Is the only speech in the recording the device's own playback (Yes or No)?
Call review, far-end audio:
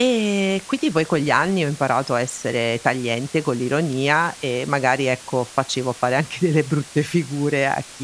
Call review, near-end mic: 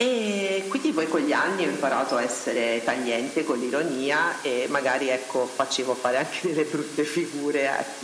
Yes